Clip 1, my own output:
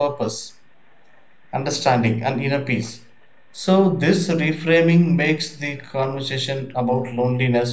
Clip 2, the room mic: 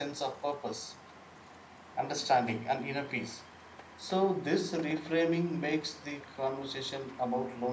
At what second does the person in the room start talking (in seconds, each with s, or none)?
none